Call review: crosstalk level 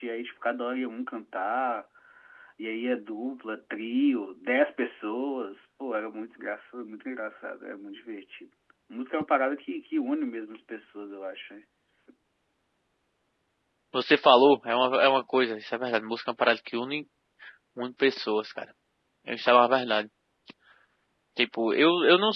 none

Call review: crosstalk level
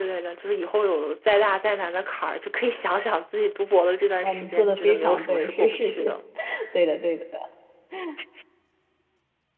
present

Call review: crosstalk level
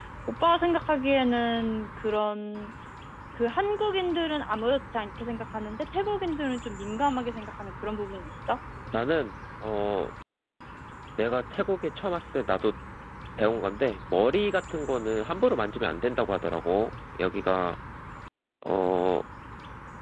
none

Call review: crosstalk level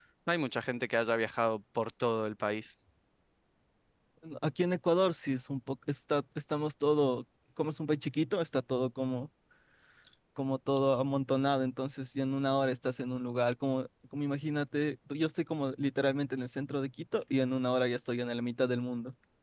none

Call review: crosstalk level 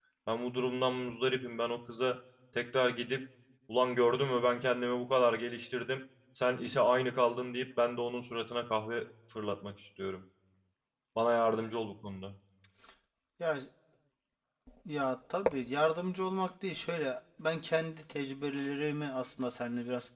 none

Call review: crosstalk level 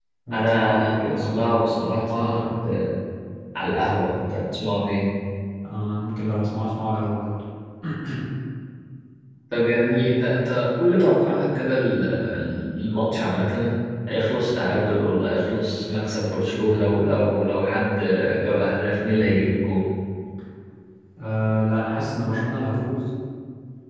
present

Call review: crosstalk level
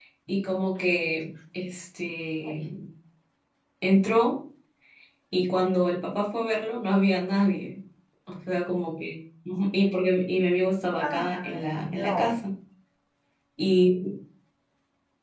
present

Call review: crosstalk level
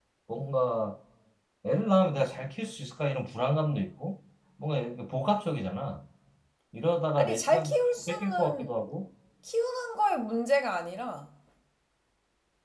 present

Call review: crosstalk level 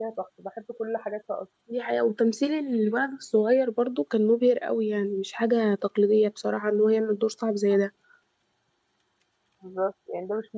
none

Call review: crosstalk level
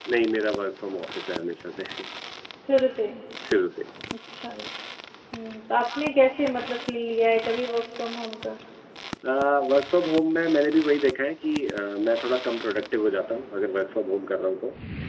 none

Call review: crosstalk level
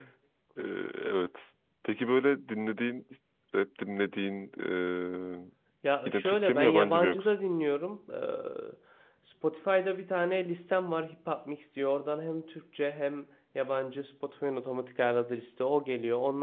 present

